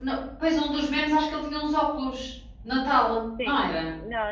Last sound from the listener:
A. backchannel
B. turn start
B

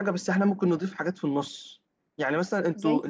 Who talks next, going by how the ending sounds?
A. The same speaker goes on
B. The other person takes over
A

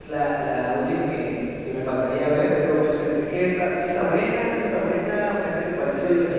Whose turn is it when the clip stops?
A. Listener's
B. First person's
B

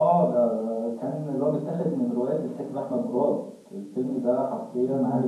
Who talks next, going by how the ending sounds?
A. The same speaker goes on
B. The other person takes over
B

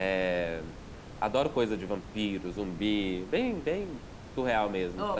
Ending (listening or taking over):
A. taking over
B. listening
A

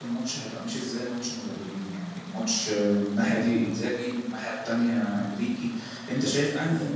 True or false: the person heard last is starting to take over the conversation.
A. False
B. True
A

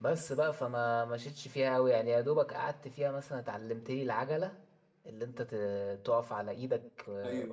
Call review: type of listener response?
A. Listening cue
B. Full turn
A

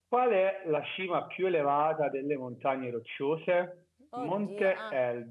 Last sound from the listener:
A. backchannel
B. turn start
A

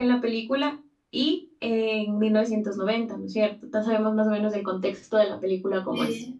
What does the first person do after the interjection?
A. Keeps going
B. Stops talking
B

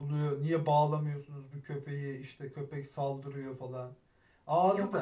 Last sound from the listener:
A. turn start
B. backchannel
B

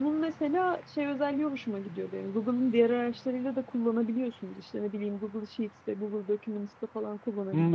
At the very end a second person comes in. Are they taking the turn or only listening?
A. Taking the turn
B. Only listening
A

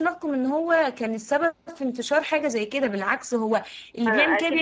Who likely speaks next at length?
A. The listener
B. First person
A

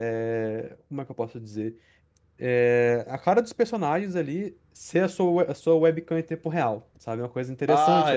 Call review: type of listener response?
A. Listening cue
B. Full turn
B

